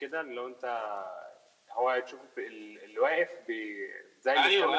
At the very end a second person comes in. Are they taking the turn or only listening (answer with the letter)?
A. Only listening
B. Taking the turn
B